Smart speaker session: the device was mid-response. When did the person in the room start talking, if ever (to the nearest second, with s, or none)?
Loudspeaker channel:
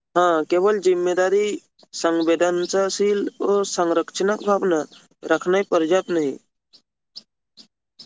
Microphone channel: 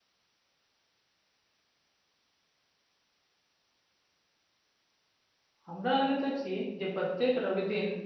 6 s